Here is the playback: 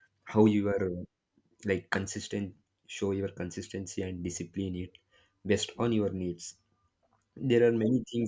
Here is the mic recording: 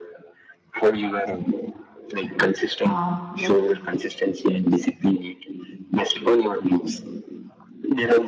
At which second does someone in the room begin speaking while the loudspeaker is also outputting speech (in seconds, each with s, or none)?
2.8 s